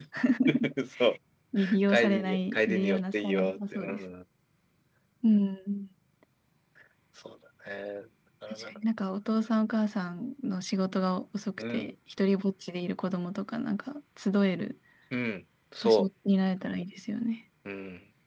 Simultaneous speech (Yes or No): Yes